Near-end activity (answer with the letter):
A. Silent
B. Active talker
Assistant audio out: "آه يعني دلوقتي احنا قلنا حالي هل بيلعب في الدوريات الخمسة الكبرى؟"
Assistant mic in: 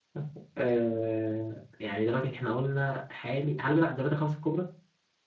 A